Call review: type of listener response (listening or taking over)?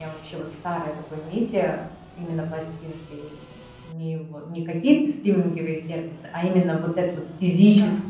listening